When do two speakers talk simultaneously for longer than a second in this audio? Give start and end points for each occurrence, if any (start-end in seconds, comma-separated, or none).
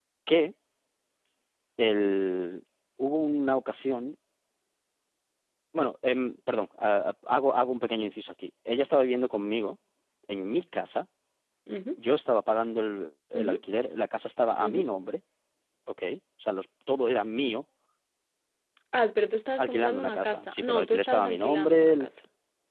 19.6-22.1